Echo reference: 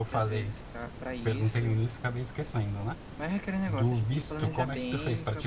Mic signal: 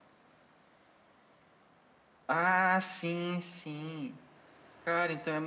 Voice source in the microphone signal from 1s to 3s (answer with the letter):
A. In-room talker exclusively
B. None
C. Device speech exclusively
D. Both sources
A